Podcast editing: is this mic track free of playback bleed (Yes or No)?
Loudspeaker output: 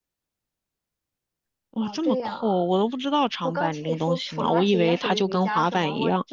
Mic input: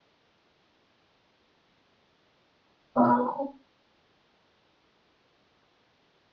Yes